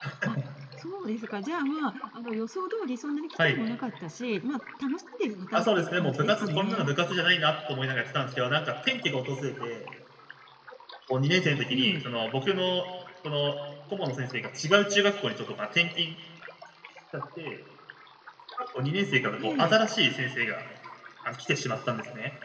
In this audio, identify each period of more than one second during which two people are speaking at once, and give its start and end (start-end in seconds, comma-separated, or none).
5.5-6.9